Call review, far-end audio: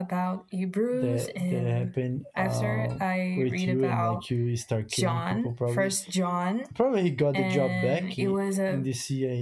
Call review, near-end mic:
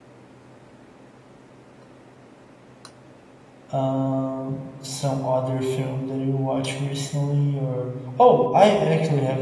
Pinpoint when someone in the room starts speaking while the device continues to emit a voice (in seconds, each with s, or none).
3.7 s